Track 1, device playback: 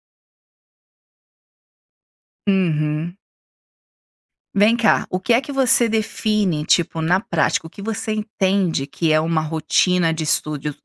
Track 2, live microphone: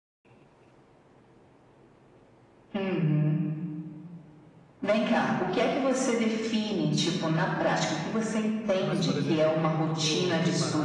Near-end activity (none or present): present